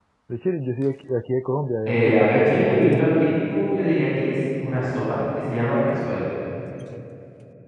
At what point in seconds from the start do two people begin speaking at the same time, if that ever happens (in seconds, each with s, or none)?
1.9 s